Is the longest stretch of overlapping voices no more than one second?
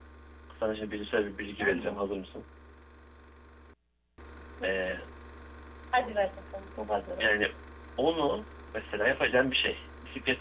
Yes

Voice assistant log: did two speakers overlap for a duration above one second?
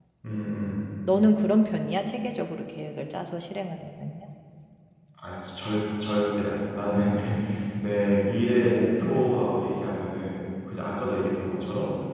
No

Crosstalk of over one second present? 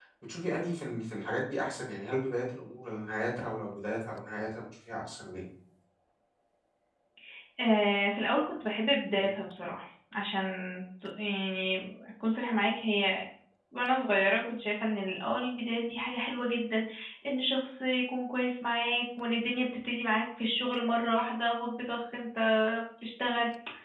No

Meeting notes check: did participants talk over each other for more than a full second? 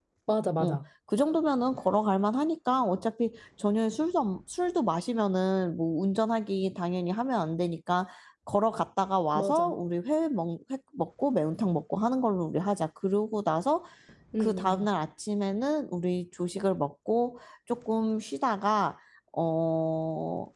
No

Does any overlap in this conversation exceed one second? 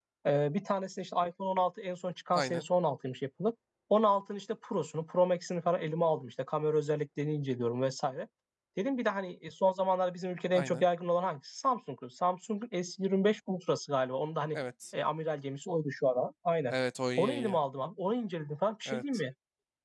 No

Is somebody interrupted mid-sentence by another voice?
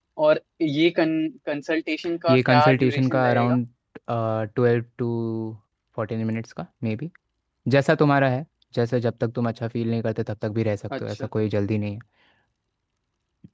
Yes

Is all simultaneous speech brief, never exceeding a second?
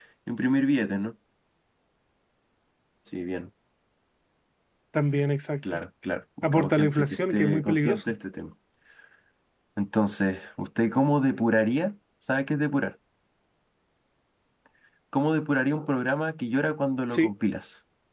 No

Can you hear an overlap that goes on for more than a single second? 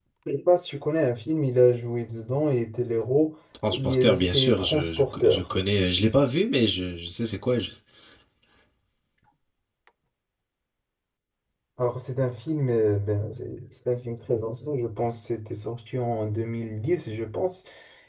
Yes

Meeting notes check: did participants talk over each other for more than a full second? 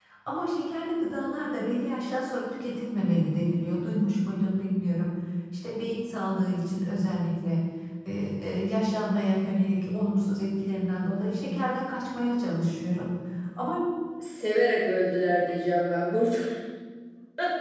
No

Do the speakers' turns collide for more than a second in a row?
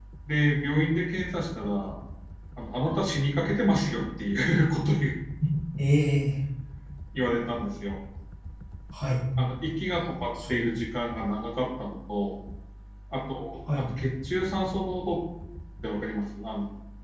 No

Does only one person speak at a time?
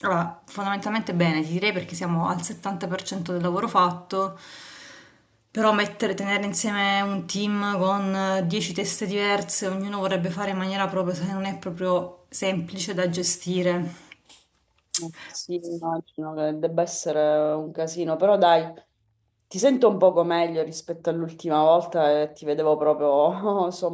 Yes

